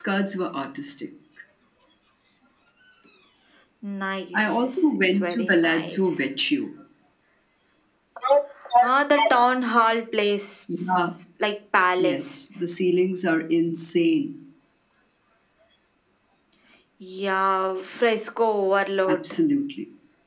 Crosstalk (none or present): present